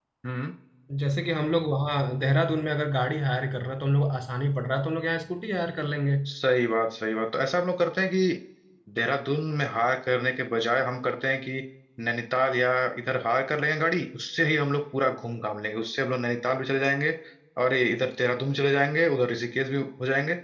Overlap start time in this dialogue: none

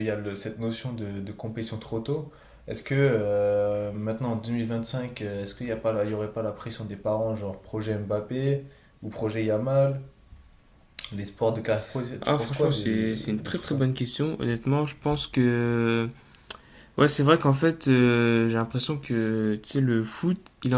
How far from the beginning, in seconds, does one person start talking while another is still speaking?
12.2 s

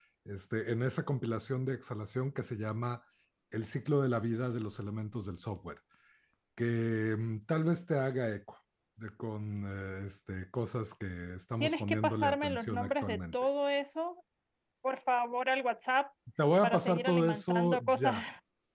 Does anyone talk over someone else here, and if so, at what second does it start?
11.6 s

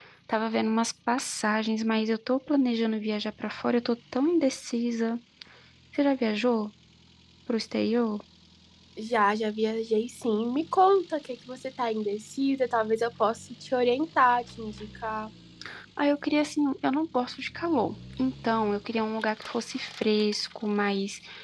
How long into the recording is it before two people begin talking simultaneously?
none

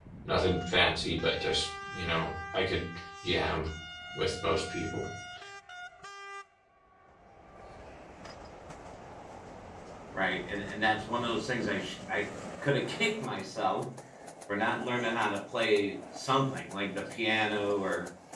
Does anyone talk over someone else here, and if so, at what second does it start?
none

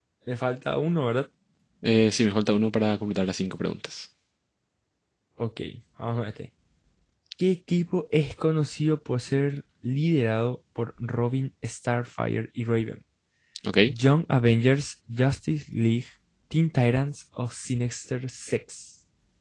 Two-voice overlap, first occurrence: none

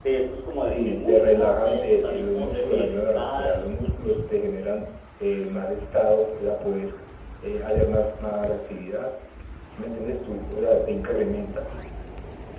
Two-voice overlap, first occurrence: 0.7 s

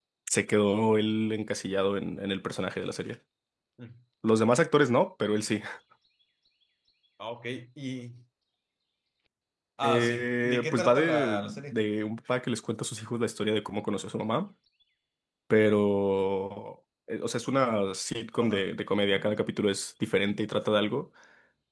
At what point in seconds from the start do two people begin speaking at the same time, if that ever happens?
9.8 s

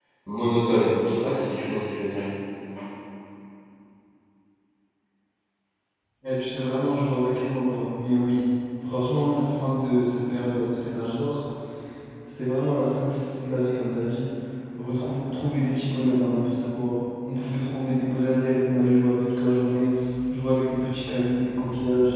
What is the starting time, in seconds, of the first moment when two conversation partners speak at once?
none

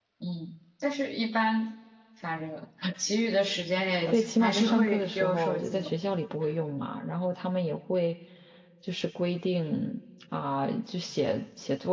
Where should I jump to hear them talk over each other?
4.1 s

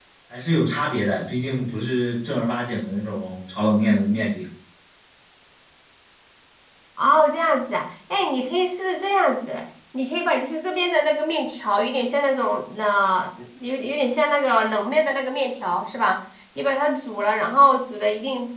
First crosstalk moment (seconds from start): none

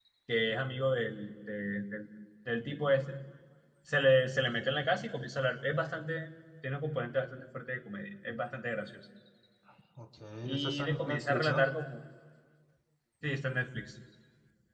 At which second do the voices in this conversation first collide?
10.4 s

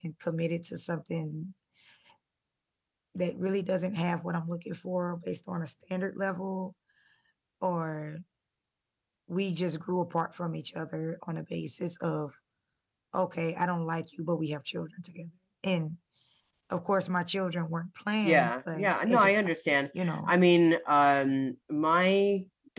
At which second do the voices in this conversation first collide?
18.2 s

